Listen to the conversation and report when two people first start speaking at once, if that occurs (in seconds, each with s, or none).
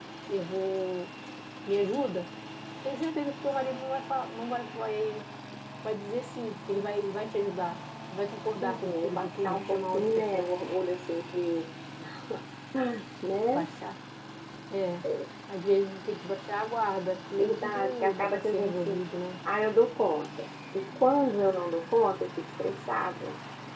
8.6 s